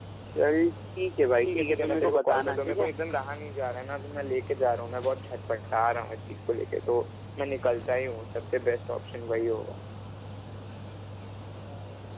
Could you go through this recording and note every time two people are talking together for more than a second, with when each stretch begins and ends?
1.4-2.9

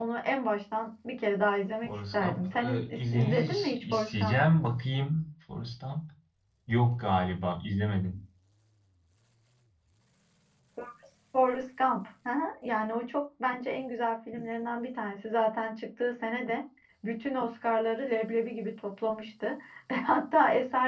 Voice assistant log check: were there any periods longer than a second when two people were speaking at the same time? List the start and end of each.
1.8-4.4

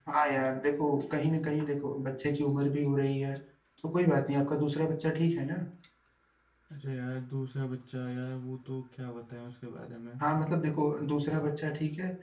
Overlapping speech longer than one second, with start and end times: none

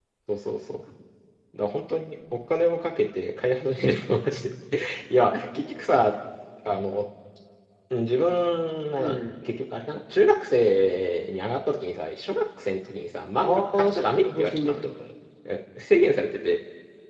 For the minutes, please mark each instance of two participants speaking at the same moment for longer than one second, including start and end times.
13.4-14.8

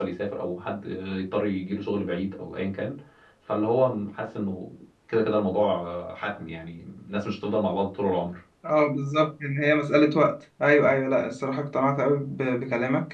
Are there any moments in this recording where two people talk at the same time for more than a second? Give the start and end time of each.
none

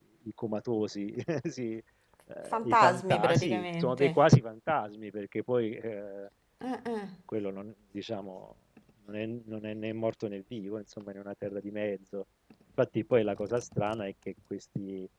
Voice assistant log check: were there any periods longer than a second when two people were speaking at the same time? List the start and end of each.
2.5-4.2

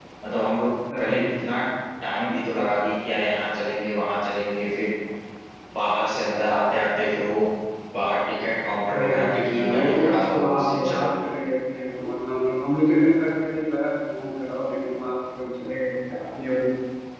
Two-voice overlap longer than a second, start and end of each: 8.9-11.1

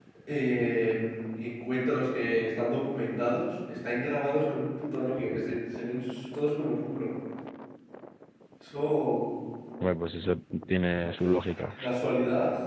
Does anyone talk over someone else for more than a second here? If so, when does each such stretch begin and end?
none

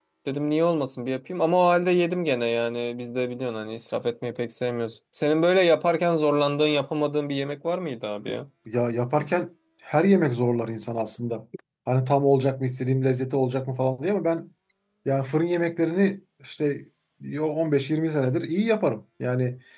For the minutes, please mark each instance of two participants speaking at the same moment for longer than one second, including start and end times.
none

